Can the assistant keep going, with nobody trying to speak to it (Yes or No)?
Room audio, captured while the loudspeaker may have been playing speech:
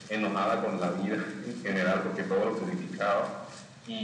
Yes